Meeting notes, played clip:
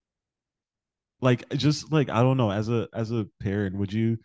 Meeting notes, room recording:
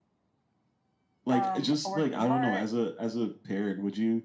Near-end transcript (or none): um, a working heart